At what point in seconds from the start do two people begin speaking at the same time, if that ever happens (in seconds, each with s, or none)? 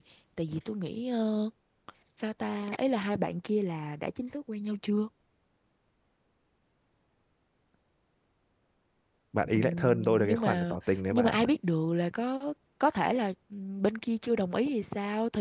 9.5 s